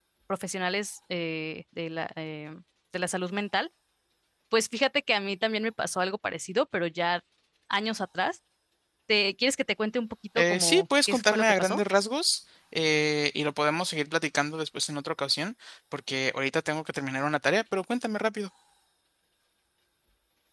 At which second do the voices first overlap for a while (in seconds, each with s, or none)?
10.3 s